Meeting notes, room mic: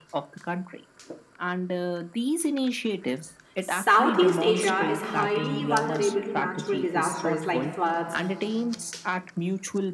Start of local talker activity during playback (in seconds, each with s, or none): 3.6 s